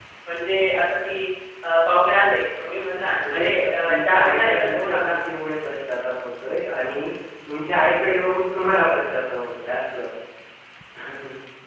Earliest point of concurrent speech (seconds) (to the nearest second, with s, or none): 3 s